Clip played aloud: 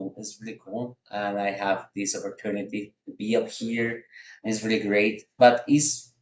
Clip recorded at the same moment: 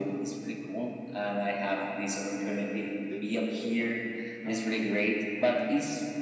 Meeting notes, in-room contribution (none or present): present